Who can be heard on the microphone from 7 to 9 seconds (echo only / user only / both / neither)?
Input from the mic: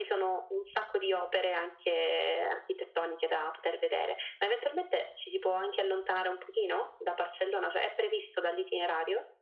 echo only